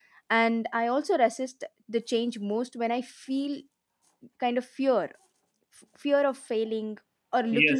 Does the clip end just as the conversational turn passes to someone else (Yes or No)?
Yes